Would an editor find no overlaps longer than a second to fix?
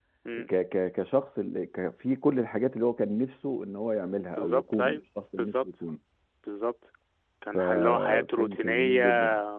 No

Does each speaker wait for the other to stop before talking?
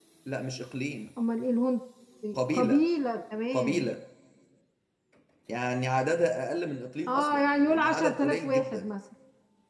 No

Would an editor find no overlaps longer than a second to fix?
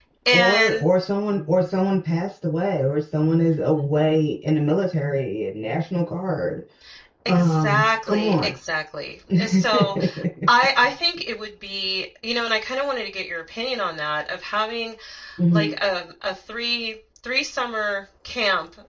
No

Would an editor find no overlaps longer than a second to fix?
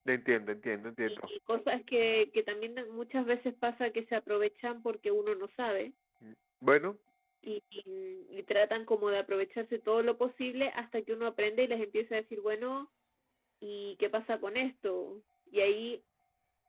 Yes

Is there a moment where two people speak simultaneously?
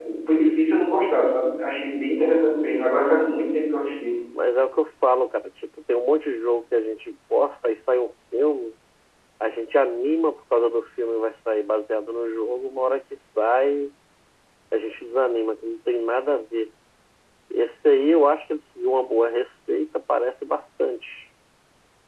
No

